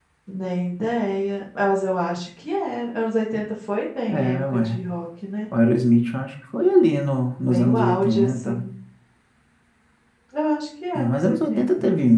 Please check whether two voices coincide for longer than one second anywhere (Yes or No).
Yes